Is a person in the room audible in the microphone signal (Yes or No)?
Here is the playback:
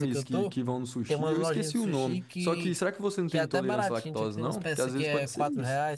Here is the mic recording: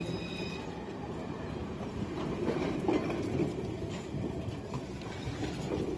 No